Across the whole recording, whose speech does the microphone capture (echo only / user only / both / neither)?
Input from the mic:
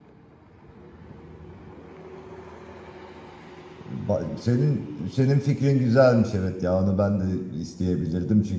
user only